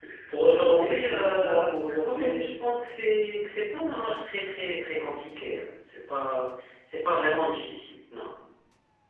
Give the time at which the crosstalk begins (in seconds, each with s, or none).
0.6 s